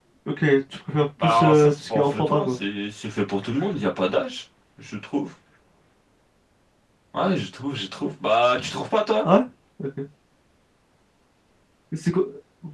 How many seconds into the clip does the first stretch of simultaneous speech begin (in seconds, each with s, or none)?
1.2 s